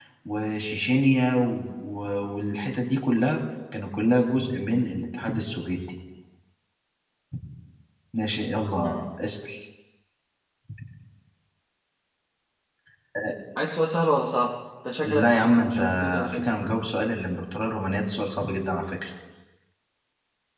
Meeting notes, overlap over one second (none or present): present